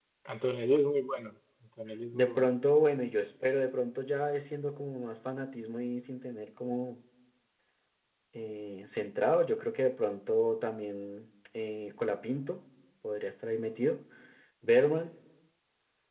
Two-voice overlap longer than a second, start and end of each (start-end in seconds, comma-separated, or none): none